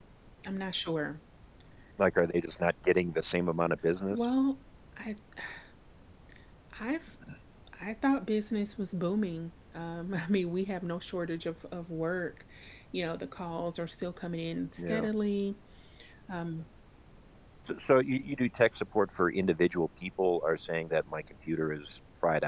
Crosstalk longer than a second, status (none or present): none